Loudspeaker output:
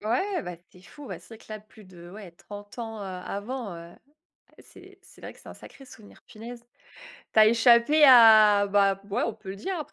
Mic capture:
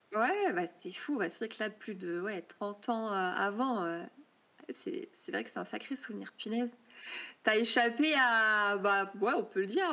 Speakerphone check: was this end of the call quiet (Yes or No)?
Yes